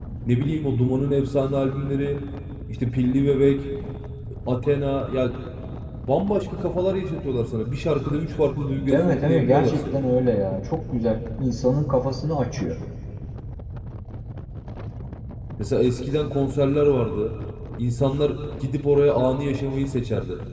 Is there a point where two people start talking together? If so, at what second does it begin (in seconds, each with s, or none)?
8.8 s